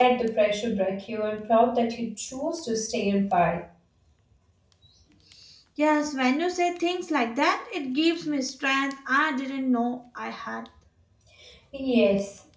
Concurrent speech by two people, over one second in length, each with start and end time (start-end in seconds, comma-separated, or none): none